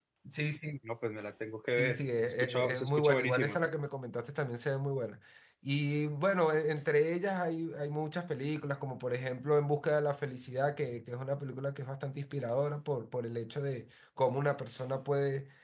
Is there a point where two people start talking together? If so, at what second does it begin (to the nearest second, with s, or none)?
2 s